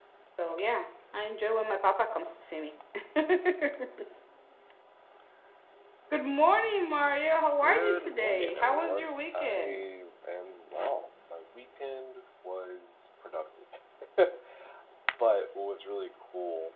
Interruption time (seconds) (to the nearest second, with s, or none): 8 s